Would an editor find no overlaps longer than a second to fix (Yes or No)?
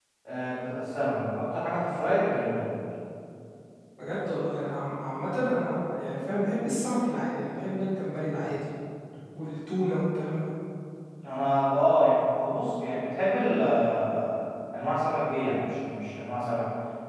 Yes